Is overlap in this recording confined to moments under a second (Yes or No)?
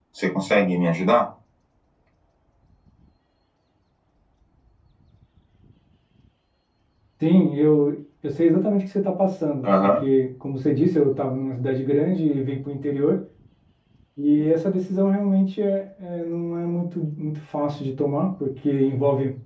Yes